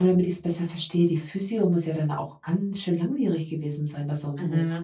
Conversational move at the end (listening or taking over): taking over